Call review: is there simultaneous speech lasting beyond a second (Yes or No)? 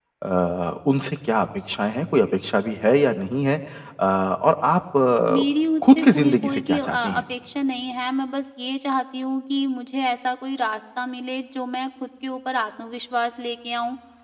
Yes